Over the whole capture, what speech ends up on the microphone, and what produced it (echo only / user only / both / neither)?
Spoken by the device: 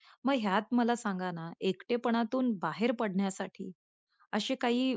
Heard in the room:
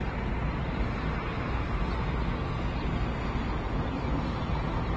neither